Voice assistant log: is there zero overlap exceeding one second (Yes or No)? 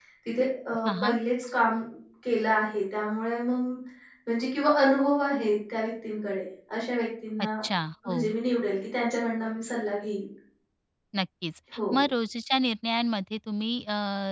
Yes